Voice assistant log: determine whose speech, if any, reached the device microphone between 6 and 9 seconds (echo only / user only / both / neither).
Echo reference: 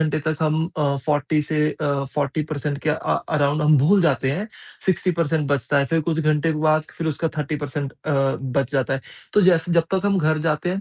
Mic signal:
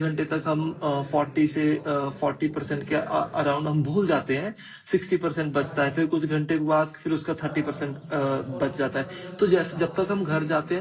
both